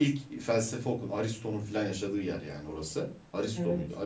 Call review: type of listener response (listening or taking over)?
listening